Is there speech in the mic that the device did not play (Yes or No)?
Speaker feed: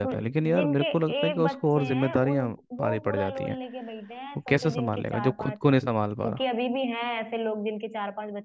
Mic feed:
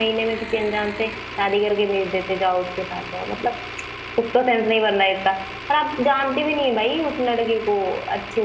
Yes